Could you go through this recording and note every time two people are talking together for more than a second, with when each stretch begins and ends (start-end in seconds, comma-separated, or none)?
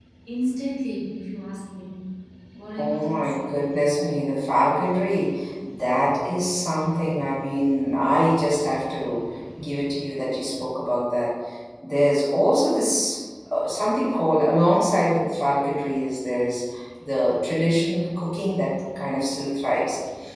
none